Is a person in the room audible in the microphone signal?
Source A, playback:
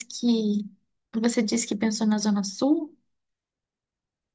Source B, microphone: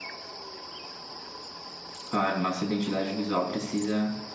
Yes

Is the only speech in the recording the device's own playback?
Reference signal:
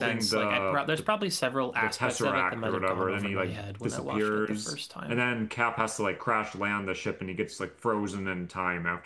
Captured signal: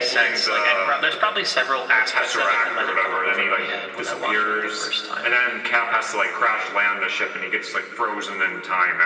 Yes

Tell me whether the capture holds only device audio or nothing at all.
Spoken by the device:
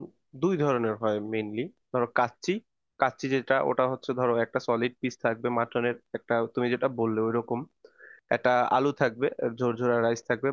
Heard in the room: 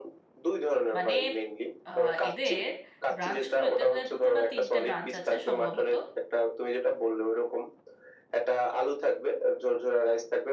No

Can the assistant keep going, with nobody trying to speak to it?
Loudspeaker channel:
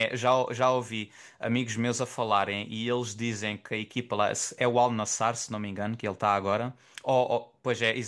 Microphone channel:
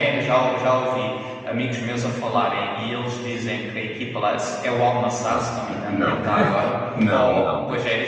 No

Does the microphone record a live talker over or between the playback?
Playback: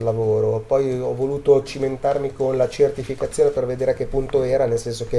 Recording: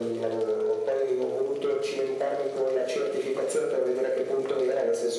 No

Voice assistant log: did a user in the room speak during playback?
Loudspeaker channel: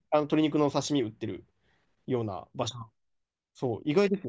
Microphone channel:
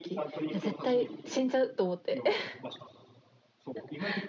Yes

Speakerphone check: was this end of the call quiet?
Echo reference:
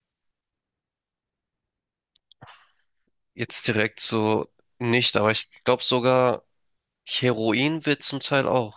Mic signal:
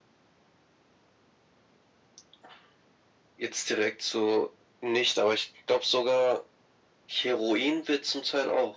Yes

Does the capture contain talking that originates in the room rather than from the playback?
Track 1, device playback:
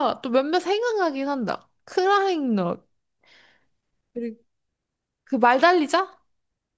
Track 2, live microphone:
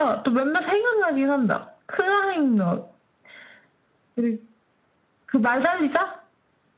No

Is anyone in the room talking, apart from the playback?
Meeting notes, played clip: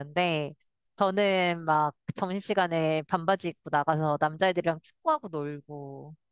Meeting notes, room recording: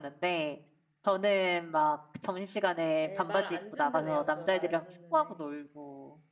Yes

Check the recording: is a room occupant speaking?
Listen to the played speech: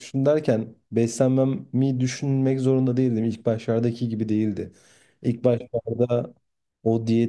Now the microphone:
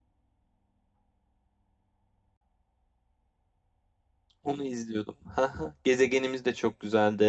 Yes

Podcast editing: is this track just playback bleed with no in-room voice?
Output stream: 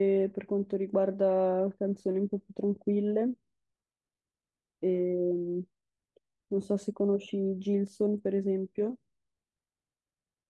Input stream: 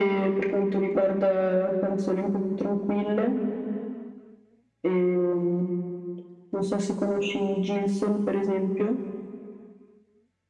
Yes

